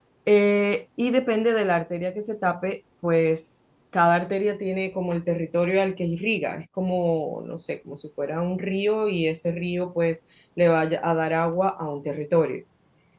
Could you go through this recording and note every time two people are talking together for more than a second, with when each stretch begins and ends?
none

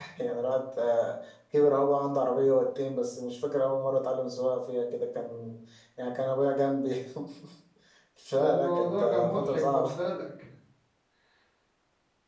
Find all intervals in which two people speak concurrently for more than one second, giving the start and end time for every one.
8.4-9.9

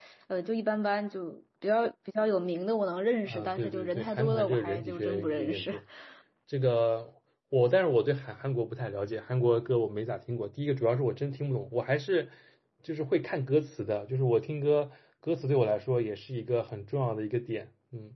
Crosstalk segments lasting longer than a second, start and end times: 3.2-5.7

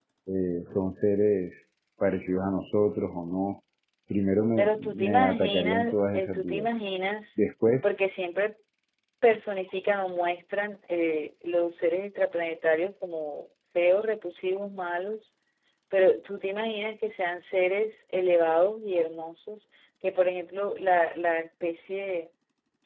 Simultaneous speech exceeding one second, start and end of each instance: 4.6-6.7

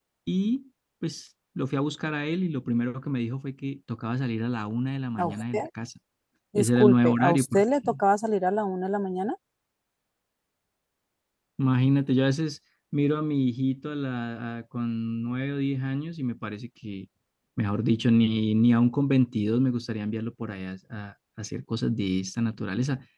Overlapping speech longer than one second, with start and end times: 6.5-8.0

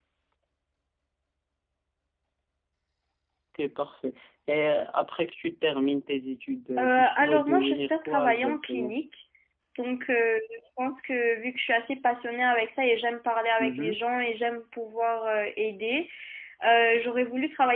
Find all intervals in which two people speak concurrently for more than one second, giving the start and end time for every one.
6.8-9.0

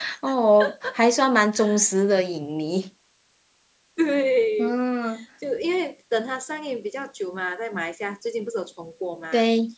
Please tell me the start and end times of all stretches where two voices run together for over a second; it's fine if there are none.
none

